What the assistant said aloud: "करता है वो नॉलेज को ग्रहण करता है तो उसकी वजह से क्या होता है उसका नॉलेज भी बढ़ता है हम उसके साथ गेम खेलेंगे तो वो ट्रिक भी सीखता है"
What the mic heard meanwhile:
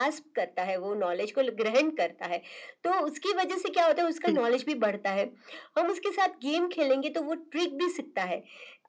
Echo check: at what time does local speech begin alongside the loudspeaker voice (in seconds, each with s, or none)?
4.3 s